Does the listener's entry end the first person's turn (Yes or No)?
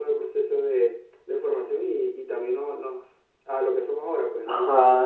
Yes